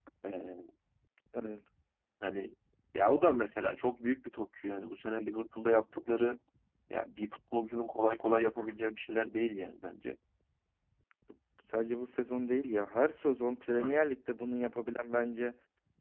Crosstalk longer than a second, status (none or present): none